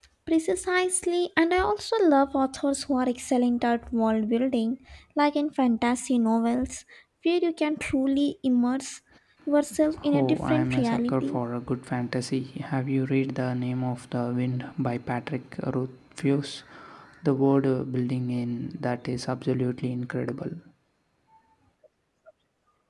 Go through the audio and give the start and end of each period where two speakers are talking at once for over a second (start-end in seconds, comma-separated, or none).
10.1-11.4